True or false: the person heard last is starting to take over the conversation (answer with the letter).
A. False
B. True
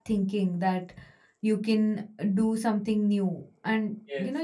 A